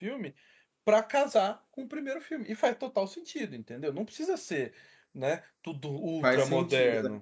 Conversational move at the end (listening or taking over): taking over